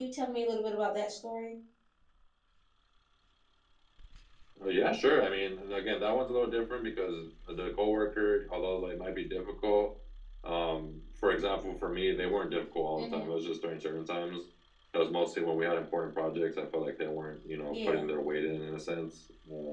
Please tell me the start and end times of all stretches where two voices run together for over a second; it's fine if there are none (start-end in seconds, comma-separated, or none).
none